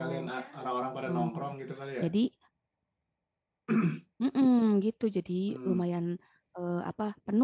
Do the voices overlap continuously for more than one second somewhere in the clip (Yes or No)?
No